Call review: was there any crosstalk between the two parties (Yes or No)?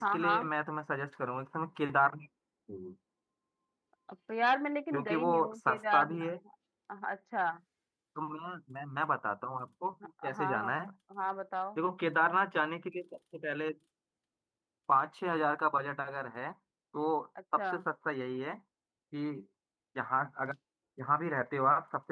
Yes